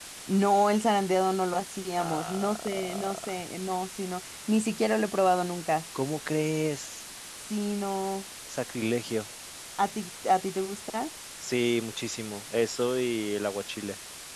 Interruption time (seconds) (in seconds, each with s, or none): 2.0 s